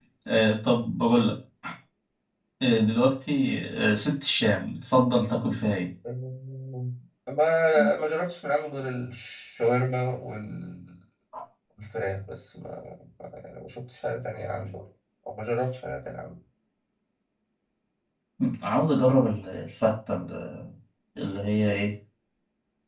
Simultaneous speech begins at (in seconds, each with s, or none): none